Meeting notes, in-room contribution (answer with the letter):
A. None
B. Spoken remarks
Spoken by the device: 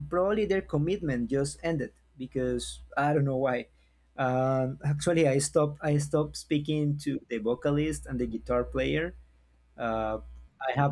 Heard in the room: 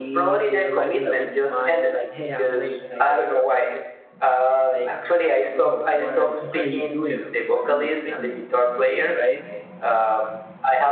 B